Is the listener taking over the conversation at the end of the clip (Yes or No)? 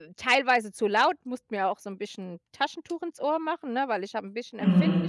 Yes